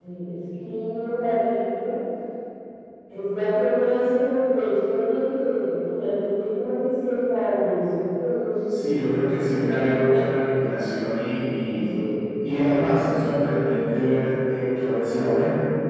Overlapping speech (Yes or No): Yes